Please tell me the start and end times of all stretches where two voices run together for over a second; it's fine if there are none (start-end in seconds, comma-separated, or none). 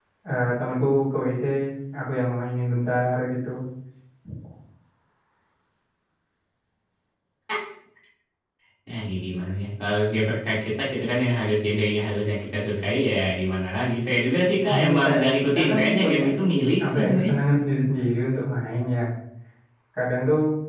14.7-16.2